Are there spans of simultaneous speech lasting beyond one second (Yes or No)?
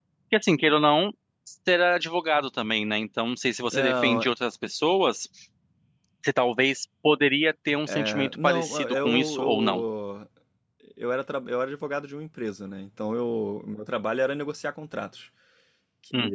Yes